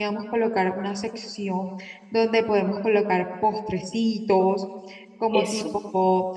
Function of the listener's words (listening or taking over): listening